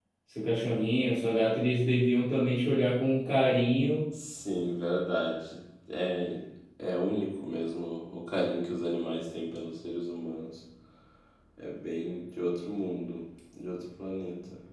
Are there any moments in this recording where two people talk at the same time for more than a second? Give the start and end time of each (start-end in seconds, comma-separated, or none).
none